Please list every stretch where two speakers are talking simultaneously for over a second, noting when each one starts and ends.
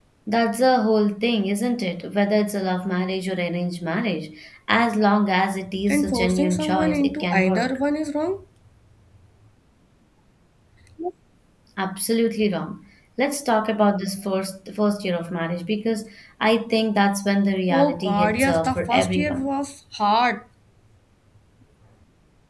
5.9-7.8, 17.7-19.5

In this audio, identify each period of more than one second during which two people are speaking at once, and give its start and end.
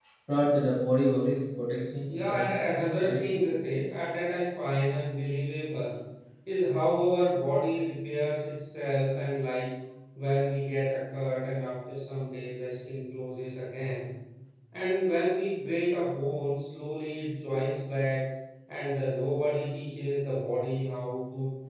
2.1-3.5

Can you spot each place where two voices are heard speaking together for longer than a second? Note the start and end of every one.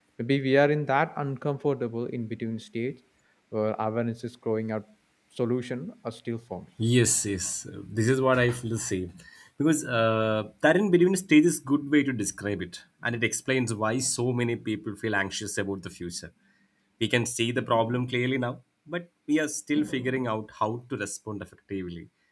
none

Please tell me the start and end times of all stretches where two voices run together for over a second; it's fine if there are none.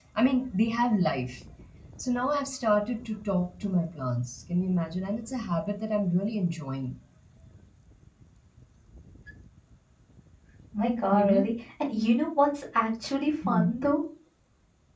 none

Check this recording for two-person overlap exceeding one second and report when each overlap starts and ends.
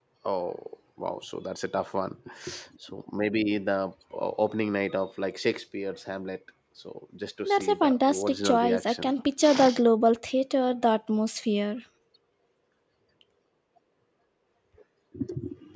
7.5-9.1

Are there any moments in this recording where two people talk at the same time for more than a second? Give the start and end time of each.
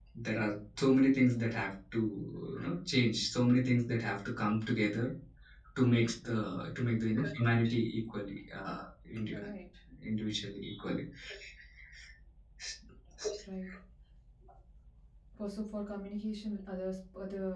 none

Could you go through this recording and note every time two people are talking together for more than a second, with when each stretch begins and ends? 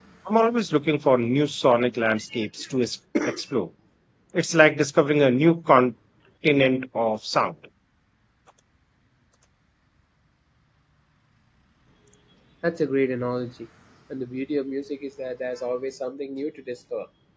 none

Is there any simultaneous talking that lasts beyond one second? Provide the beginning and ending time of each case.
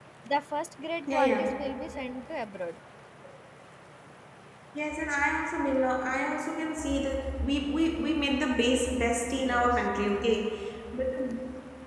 none

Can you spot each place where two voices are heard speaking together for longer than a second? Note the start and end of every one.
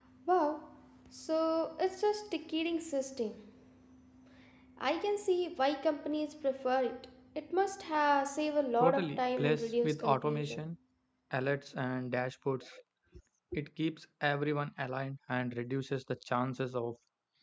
8.8-10.6

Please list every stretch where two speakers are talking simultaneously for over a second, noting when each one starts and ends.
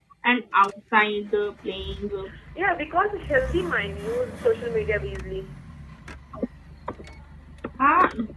none

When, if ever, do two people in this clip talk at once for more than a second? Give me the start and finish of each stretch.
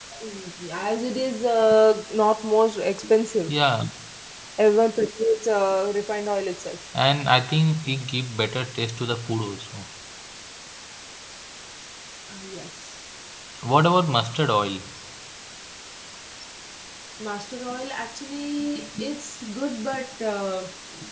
none

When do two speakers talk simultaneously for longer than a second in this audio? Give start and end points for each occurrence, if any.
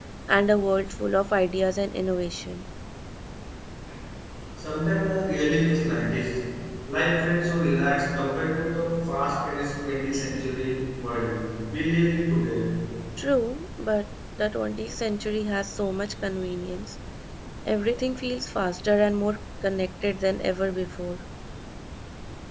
none

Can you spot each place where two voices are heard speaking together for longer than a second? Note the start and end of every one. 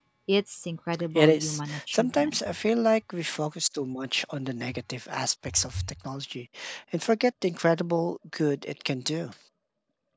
1.1-2.4

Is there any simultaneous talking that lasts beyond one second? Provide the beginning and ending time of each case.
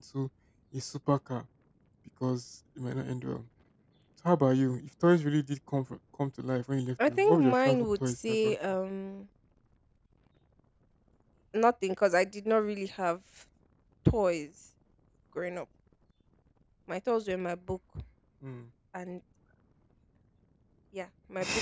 7.1-8.6

